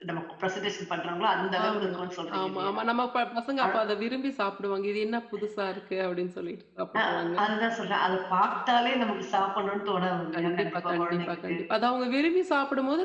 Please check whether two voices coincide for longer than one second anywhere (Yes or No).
Yes